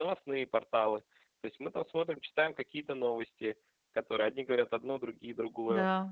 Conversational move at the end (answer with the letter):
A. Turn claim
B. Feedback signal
A